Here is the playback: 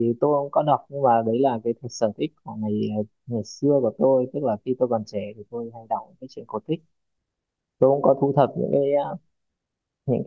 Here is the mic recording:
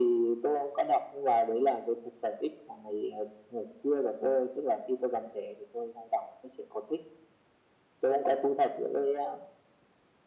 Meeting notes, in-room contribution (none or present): none